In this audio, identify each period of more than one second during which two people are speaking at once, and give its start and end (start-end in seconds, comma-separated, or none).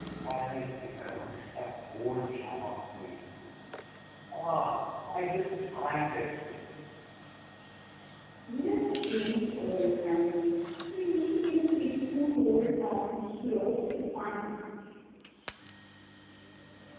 none